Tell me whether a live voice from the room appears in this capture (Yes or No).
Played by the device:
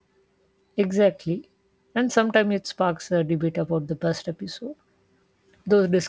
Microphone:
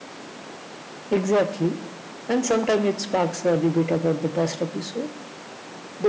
No